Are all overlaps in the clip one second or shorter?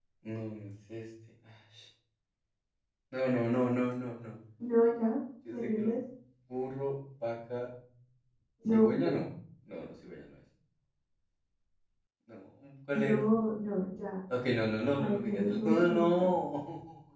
No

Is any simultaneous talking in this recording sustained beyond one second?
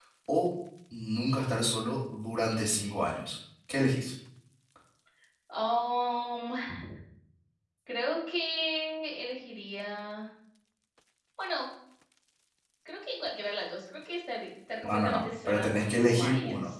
Yes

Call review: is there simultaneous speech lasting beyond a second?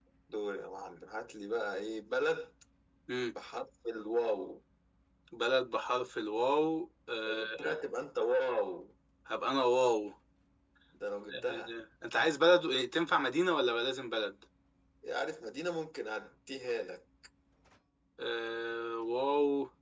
No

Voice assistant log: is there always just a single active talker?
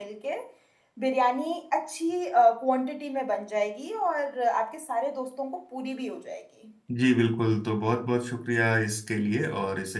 Yes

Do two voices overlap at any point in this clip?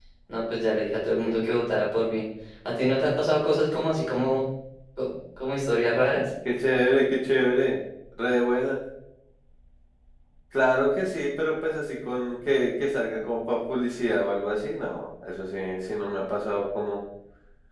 No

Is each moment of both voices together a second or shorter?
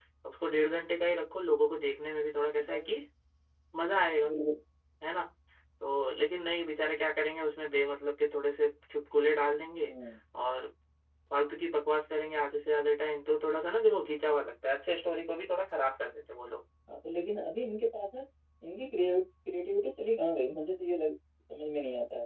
Yes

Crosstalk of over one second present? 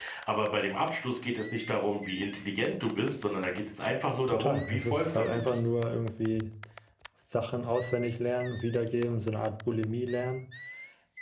Yes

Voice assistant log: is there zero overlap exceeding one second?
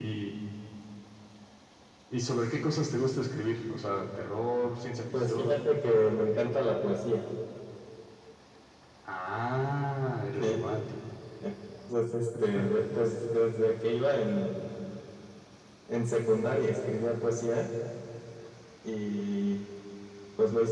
Yes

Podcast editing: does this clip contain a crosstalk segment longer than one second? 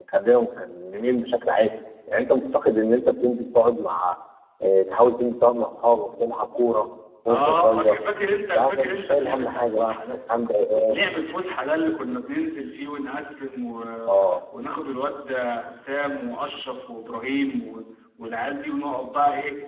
Yes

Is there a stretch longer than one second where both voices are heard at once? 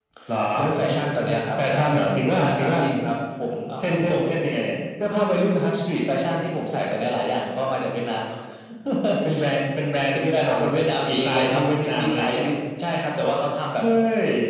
Yes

